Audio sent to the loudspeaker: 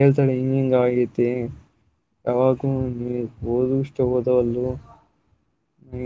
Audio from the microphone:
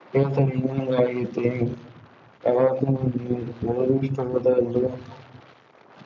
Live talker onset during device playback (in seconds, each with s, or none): none